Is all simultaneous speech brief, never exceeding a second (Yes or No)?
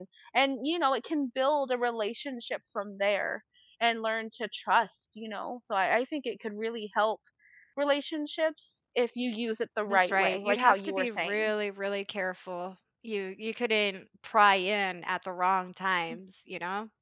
No